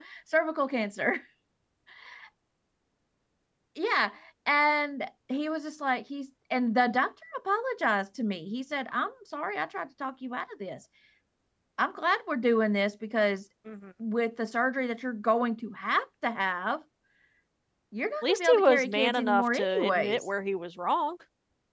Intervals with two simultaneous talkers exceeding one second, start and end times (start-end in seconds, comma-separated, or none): 18.2-20.3